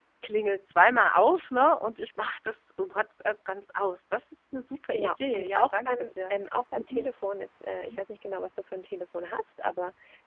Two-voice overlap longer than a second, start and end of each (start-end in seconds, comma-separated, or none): 4.9-6.3